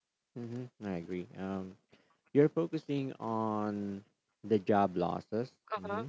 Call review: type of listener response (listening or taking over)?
listening